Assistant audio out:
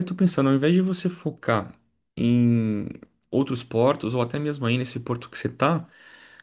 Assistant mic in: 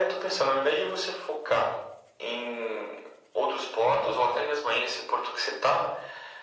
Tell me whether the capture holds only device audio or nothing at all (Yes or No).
Yes